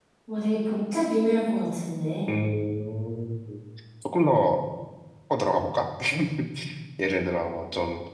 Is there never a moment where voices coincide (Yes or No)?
Yes